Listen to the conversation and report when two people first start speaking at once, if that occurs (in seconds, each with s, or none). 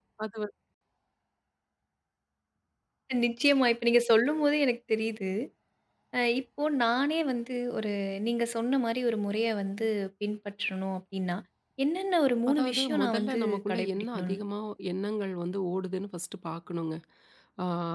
12.5 s